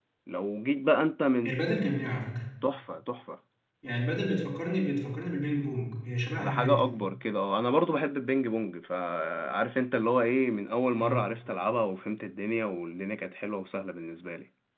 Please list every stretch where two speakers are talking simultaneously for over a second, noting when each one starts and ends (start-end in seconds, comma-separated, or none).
none